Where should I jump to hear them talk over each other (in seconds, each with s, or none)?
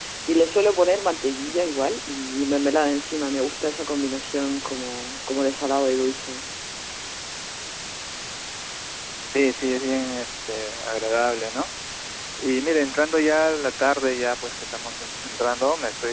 none